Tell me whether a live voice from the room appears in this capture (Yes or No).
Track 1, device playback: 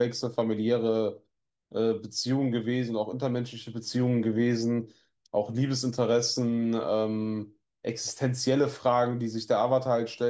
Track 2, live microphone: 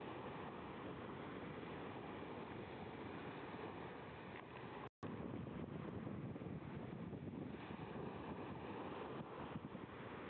No